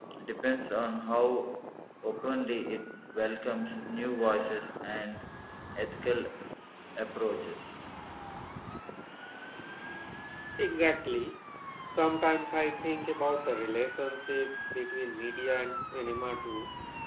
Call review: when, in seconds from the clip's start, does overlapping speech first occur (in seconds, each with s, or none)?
none